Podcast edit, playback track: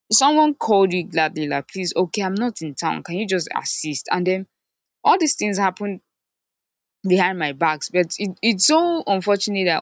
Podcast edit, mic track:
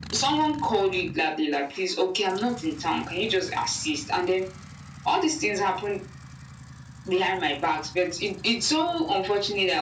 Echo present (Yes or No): Yes